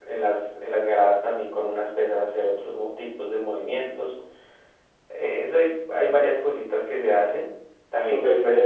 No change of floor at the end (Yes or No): No